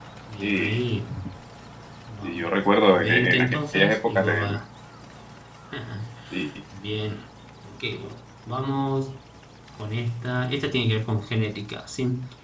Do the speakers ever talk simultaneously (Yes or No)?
Yes